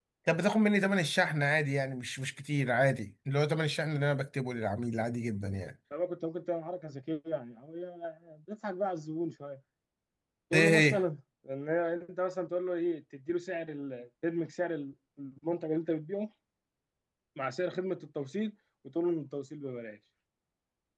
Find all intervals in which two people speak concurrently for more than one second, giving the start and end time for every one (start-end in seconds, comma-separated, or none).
none